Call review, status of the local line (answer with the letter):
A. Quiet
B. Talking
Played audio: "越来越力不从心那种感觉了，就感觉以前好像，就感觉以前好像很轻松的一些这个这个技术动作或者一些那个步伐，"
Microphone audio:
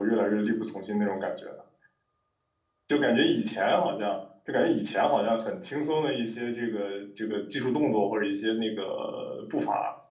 A